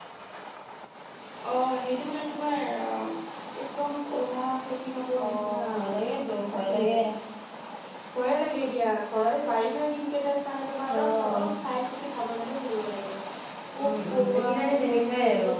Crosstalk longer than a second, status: present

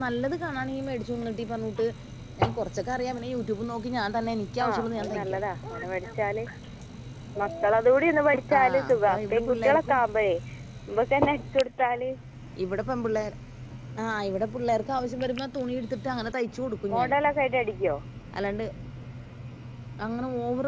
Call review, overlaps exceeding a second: present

